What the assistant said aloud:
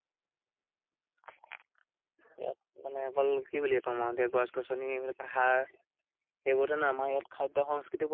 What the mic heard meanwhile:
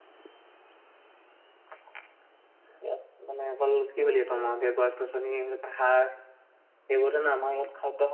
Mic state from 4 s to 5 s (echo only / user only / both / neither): both